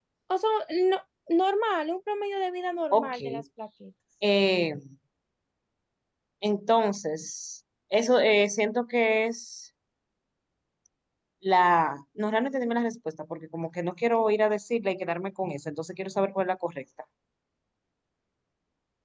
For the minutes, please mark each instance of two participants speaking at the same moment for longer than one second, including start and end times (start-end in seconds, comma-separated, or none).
none